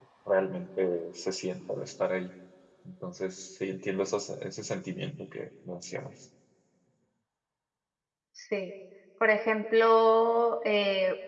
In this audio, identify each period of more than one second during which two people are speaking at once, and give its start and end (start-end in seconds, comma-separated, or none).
none